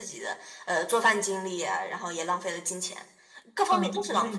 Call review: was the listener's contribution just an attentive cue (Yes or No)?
No